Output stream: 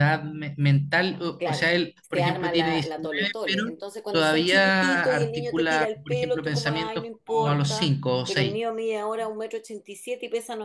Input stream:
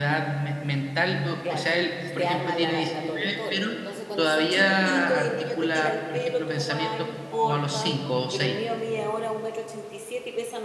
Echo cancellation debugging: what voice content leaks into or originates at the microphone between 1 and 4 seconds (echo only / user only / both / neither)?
both